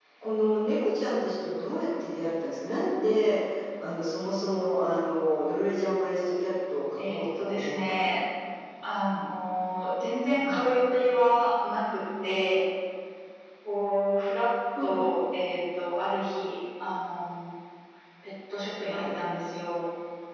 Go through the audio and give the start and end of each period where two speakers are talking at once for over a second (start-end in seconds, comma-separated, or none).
7.0-8.2